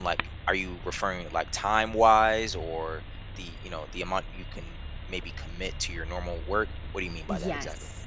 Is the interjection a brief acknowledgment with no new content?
No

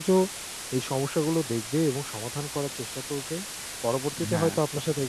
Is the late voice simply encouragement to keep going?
Yes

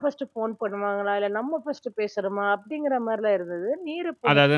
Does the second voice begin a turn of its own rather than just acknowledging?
Yes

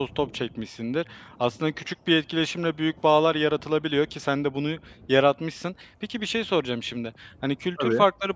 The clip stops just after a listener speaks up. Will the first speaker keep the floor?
Yes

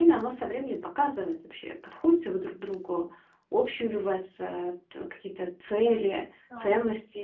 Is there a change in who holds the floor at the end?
No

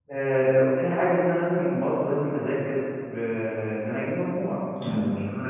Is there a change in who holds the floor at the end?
No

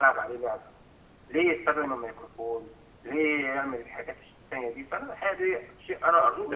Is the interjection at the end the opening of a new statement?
Yes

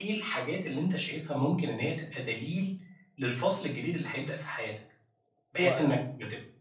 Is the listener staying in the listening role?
Yes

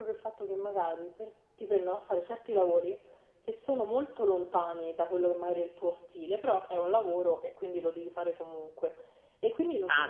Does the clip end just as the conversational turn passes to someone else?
Yes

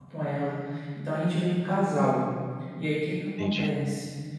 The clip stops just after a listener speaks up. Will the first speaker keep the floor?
Yes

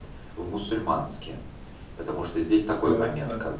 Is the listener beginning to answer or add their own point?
No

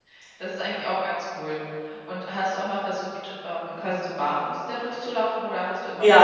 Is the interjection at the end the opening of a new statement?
Yes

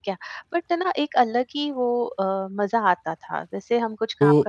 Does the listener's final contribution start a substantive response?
Yes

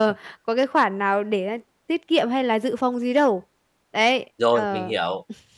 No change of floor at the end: No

